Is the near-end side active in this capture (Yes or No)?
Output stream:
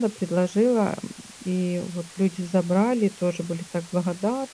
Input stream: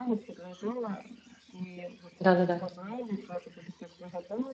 Yes